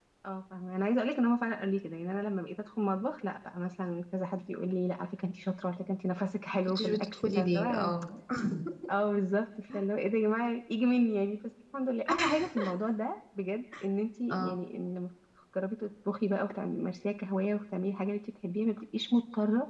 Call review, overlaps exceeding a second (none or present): present